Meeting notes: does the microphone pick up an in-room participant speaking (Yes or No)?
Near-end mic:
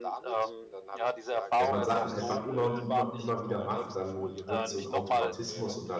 Yes